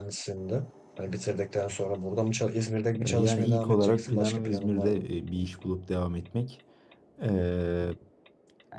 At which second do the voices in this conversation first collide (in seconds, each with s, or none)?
2.9 s